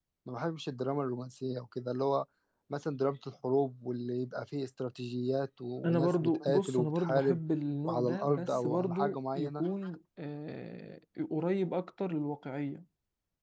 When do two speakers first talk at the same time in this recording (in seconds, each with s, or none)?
5.8 s